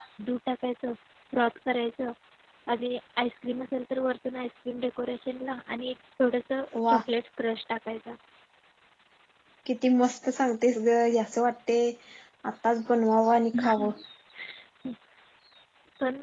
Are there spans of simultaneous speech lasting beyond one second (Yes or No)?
No